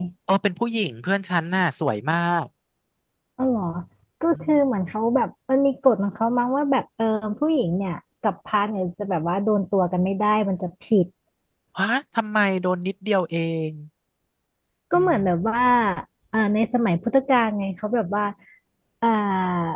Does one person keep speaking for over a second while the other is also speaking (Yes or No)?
No